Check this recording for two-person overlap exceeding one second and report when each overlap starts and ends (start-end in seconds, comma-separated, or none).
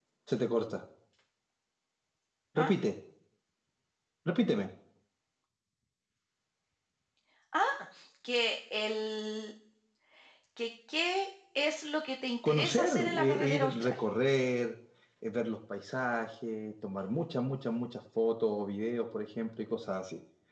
12.4-14.0